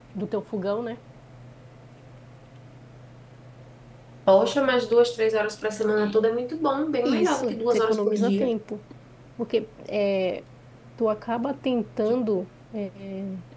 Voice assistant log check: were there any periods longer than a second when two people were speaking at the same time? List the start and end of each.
7.0-8.5

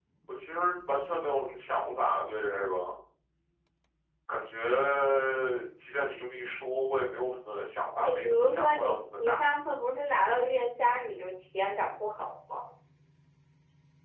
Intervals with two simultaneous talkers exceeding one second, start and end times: 8.0-9.5

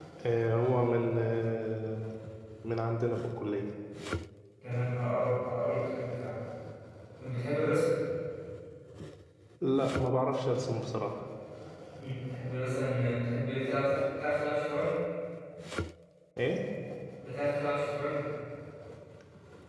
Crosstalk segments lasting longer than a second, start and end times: none

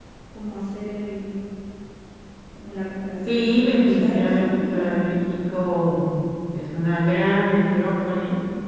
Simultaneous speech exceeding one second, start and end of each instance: 3.3-5.2

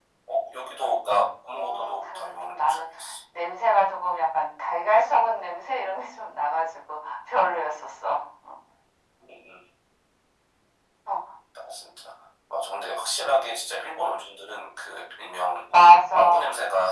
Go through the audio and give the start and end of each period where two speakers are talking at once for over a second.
1.6-2.9

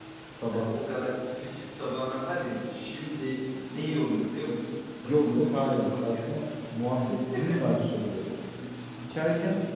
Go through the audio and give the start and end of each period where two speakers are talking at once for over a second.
5.0-6.3

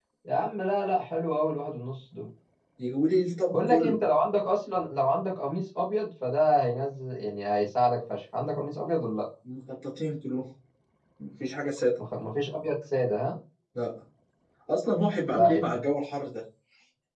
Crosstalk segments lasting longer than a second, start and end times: none

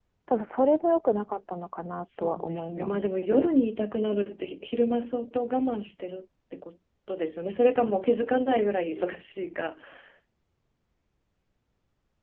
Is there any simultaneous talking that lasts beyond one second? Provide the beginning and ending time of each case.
2.2-3.5

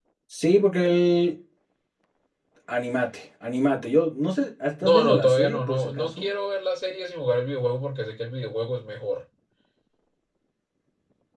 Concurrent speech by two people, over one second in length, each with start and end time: 4.8-6.2

